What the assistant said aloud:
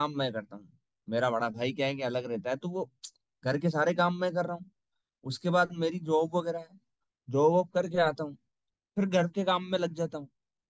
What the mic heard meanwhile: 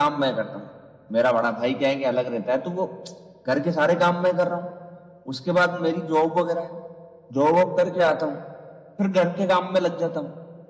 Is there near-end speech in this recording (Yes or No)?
No